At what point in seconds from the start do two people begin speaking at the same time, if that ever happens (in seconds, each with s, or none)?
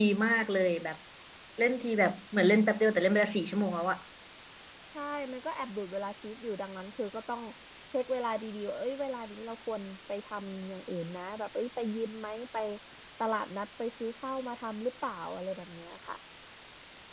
none